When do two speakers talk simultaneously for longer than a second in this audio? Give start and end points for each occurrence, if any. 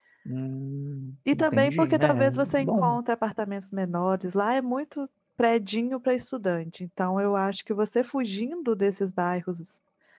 1.3-3.0

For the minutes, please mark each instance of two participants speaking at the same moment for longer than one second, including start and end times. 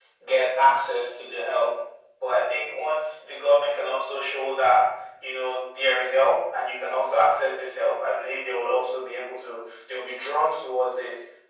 none

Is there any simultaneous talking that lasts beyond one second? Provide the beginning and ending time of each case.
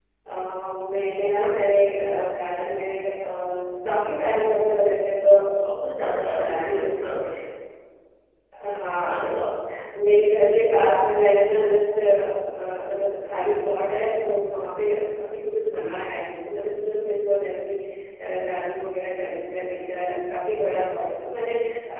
5.7-7.1

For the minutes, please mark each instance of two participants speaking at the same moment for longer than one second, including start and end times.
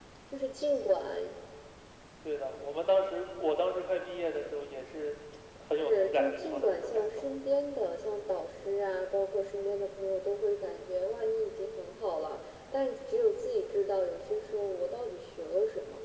5.8-7.2

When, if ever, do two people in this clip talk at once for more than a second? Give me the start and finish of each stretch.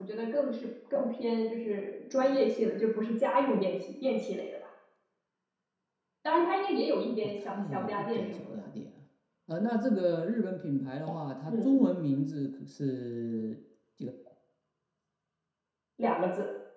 7.2-8.6

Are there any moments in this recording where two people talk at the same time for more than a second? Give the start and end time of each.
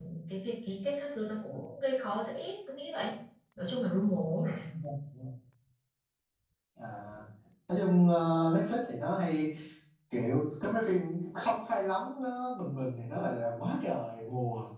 none

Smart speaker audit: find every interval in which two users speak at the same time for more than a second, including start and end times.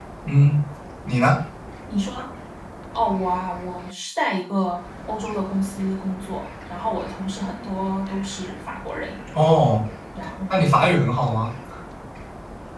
none

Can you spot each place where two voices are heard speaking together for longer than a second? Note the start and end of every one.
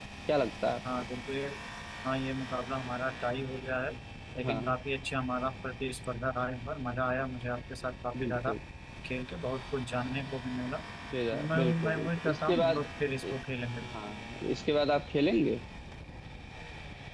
11.3-12.9

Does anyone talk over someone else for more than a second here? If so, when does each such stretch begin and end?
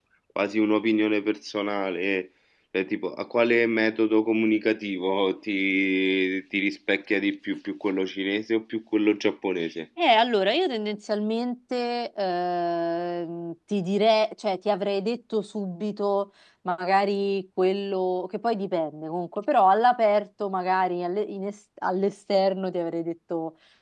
none

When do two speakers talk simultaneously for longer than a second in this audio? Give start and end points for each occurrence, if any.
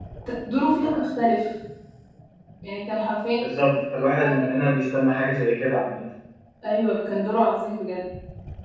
none

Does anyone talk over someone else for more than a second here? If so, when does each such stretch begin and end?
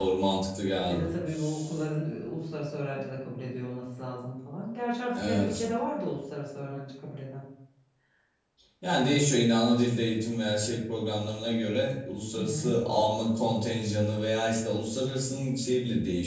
none

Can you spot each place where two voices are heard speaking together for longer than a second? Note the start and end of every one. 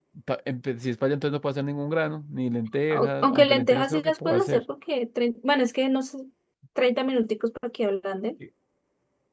2.9-4.6

